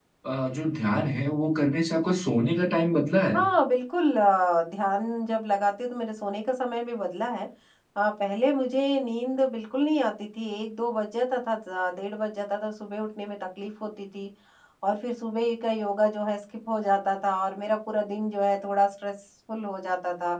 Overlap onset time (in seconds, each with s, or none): none